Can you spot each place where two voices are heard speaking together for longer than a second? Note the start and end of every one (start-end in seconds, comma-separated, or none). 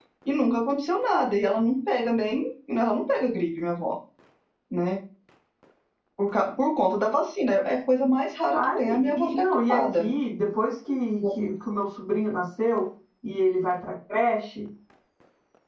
8.5-10.1